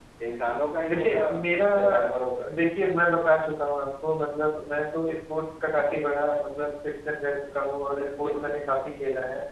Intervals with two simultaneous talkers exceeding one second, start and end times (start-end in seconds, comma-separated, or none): none